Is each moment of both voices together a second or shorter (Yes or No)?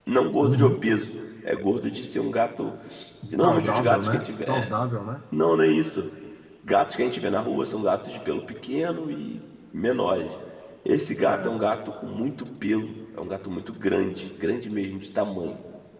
No